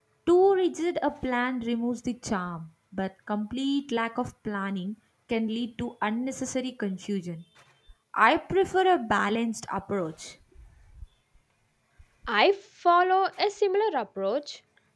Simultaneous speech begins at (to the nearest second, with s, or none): none